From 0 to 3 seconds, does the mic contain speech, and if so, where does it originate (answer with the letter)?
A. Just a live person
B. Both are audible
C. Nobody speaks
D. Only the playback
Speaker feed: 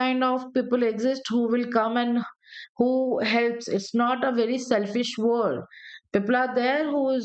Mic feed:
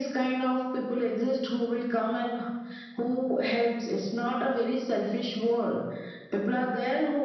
D